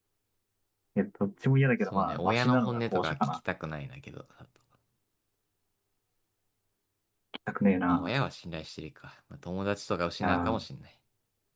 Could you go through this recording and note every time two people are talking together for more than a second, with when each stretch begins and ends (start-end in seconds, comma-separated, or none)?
1.9-3.1